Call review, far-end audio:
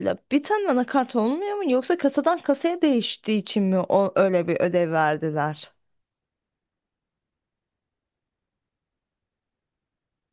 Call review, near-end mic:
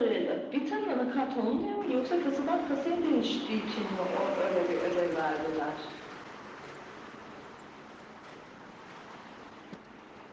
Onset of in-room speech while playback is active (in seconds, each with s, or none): none